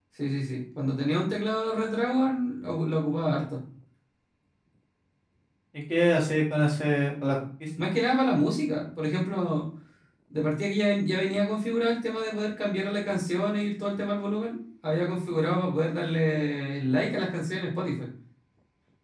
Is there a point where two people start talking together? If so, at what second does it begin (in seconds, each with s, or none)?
none